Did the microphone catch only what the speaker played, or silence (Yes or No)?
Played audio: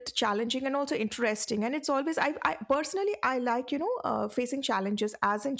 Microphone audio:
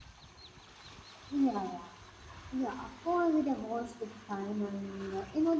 No